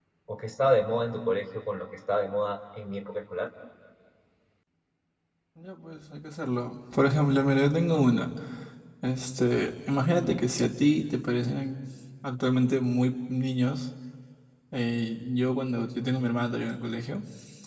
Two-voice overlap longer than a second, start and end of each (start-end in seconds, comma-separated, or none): none